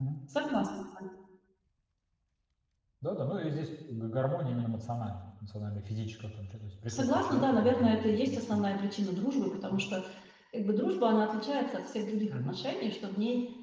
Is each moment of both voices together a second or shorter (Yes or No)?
No